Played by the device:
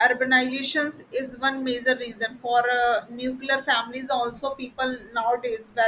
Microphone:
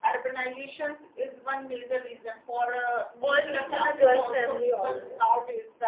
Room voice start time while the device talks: 3 s

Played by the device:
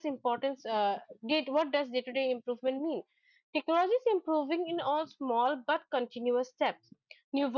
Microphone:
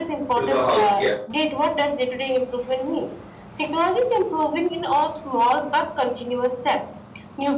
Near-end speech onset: 0 s

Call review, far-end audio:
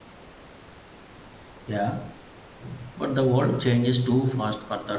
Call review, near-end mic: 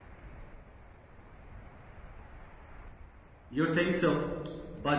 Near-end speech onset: 3 s

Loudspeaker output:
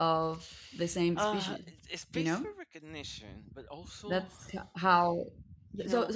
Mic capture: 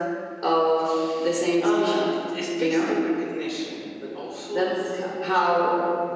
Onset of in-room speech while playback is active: none

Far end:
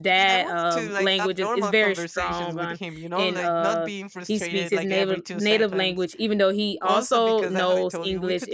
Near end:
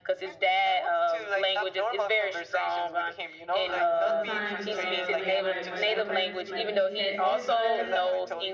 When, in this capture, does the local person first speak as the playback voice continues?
4 s

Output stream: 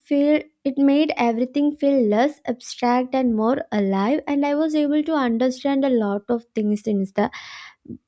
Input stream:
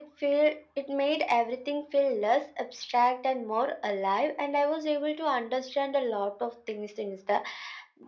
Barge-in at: none

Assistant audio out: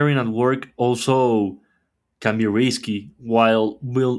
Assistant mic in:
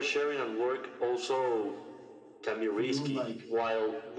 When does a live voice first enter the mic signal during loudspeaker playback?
3 s

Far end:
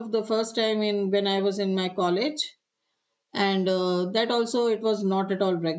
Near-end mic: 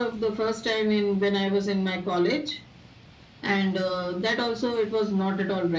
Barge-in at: none

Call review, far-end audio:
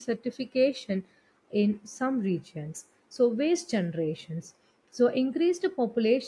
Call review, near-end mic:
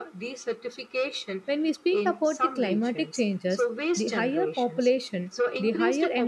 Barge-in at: 1 s

